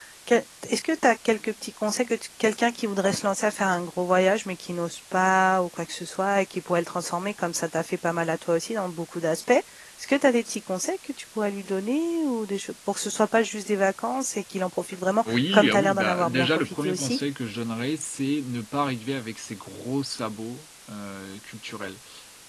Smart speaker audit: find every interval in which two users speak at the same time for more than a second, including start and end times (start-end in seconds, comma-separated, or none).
15.3-17.2